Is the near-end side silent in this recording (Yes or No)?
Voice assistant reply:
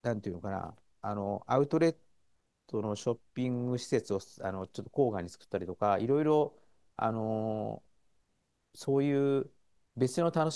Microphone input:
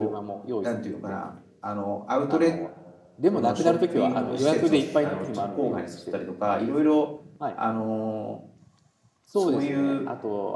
No